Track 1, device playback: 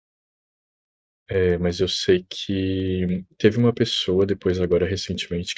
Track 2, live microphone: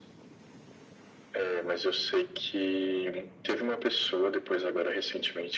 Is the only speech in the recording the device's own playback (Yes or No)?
Yes